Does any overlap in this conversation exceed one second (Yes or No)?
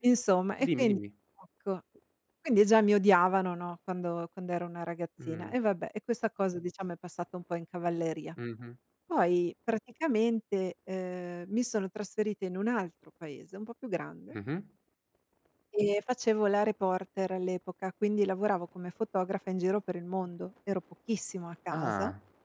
No